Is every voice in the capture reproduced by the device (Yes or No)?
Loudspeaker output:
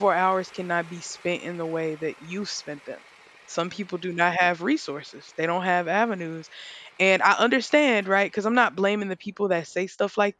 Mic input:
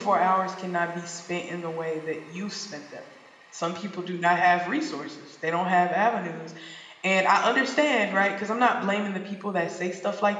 Yes